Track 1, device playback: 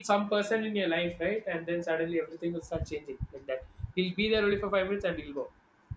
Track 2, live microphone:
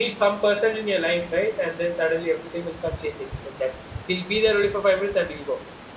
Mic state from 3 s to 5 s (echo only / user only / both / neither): echo only